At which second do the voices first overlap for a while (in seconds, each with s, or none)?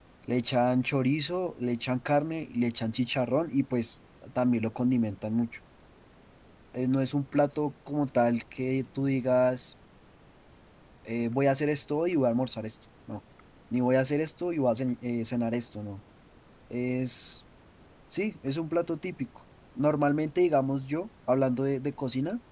none